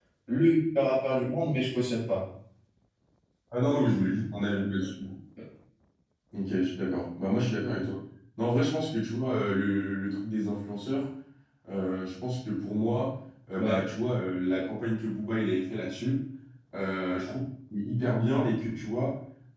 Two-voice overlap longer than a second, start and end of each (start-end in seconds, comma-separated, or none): none